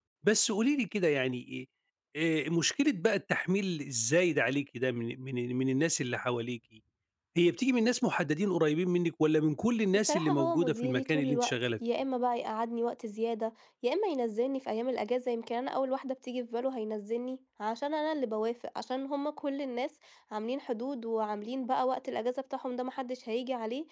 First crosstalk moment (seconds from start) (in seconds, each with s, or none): 9.9 s